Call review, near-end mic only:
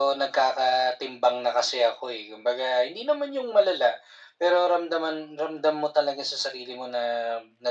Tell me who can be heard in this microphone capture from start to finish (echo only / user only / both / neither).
echo only